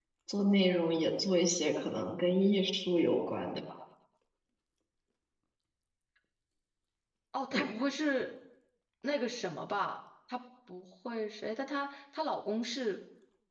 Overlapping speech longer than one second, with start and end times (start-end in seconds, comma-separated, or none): none